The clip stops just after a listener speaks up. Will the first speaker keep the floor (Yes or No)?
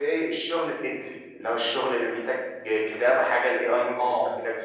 No